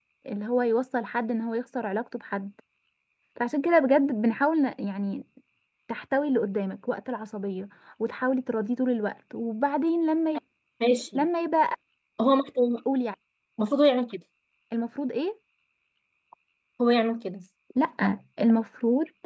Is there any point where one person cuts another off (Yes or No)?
No